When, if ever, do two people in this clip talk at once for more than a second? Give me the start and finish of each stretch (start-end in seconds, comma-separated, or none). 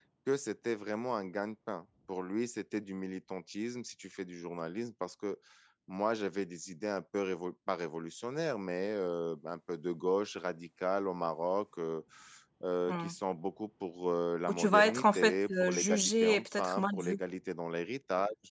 14.5-17.2